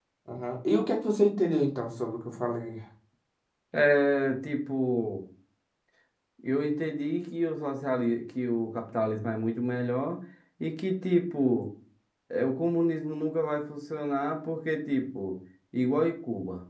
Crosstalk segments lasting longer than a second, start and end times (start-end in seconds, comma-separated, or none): none